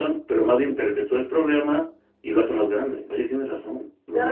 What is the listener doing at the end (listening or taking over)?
taking over